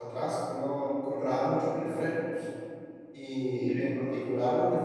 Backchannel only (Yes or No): Yes